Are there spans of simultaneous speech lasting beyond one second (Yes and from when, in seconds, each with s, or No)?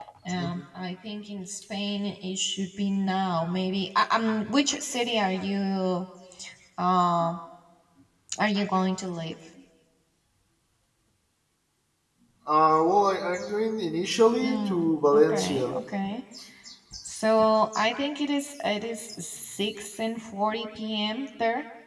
Yes, from 14.4 s